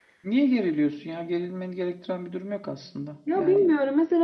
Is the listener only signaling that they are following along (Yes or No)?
No